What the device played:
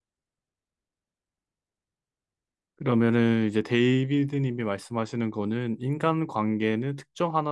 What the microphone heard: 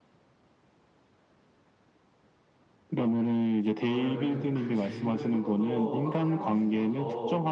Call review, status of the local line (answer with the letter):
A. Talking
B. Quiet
A